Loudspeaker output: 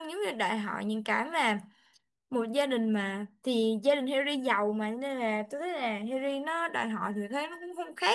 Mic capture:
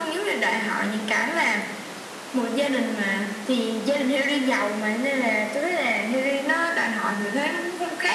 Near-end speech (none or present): none